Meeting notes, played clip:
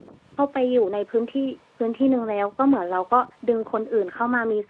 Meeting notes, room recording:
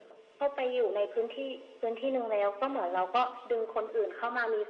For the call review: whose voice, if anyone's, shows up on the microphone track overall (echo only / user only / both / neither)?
echo only